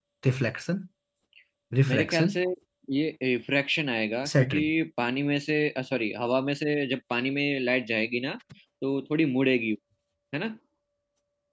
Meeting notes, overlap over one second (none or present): none